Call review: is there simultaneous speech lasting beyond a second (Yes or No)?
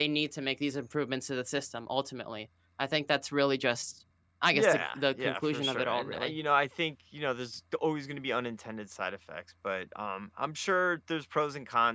Yes